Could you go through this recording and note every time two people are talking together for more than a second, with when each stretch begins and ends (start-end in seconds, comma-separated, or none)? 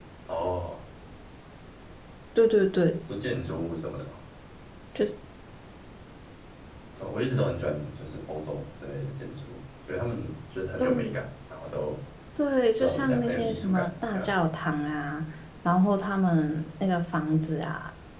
12.8-14.3